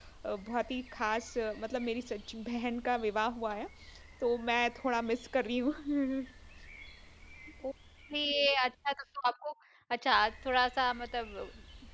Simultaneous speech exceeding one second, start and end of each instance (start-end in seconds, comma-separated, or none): none